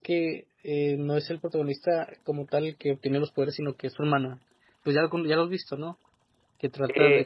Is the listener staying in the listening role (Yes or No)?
No